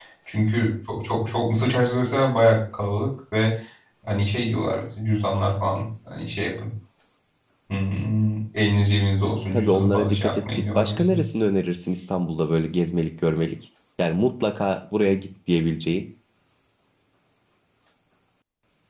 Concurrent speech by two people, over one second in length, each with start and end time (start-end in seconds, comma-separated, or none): 9.5-11.2